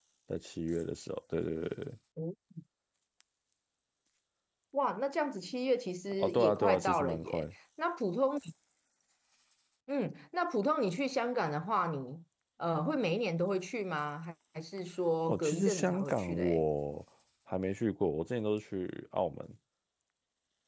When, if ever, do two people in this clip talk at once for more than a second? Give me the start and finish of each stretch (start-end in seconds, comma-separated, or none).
6.2-7.4, 15.3-16.6